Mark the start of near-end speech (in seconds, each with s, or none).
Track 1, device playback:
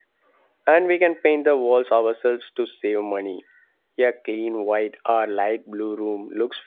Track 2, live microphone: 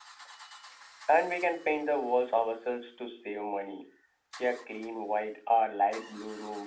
none